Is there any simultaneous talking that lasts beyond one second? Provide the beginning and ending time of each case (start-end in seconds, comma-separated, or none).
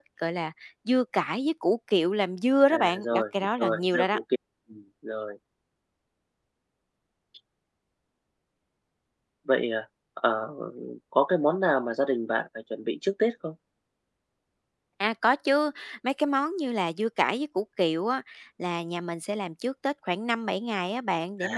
2.7-4.2